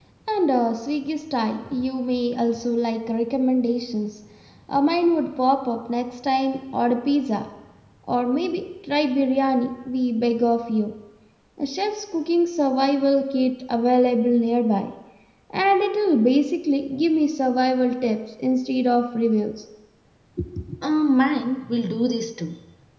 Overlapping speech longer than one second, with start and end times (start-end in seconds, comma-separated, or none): none